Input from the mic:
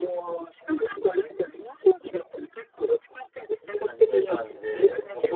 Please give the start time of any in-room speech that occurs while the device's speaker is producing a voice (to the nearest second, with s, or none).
4 s